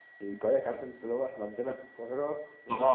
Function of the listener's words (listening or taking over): taking over